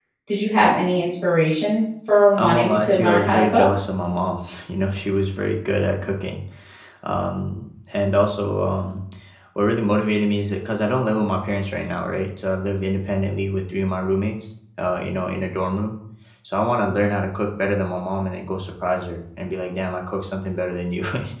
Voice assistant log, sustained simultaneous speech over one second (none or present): present